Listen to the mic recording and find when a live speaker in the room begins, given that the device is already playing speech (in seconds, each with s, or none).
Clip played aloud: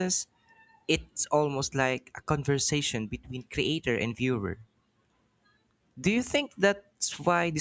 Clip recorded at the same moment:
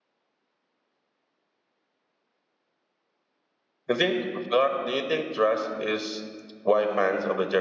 3.9 s